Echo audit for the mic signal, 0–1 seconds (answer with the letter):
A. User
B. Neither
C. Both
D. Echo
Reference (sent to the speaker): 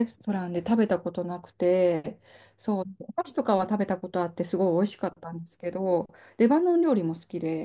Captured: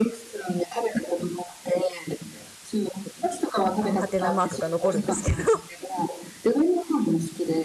D